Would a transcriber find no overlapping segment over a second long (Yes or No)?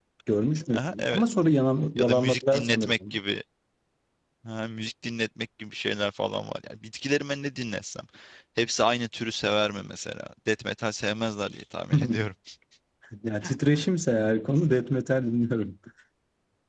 No